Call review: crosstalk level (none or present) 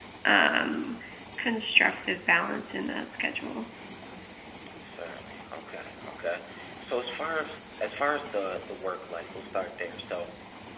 none